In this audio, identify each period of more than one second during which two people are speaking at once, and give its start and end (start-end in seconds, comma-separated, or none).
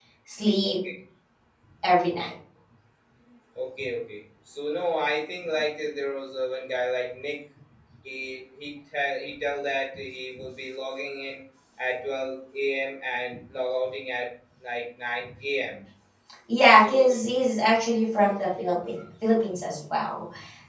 none